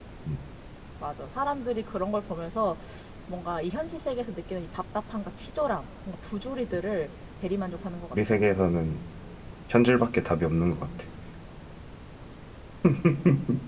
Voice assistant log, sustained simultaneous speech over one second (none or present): none